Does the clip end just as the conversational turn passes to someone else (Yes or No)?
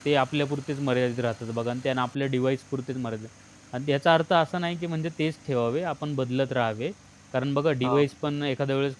No